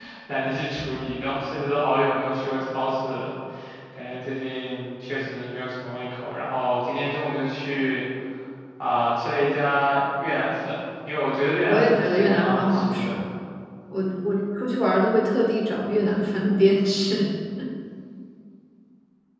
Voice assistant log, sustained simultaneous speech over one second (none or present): present